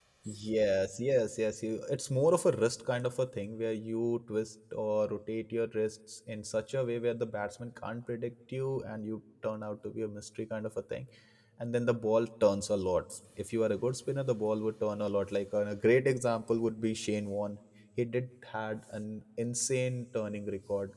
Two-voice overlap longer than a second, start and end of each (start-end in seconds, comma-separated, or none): none